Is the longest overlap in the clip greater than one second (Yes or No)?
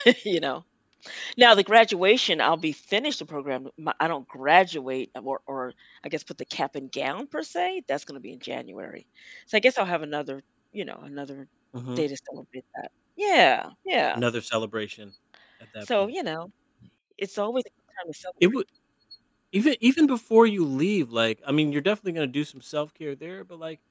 No